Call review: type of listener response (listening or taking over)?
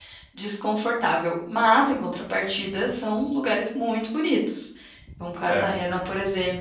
listening